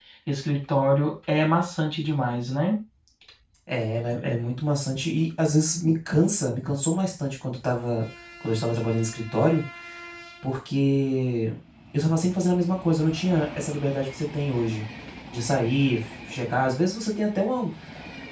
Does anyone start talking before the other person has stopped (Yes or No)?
No